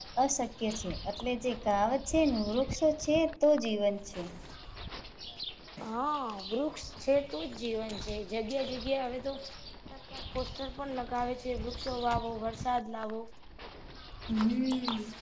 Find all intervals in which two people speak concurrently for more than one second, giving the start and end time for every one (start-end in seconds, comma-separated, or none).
none